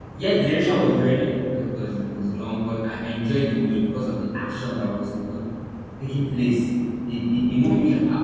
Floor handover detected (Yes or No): No